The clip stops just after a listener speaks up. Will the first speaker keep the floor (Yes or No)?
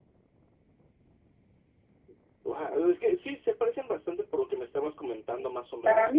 No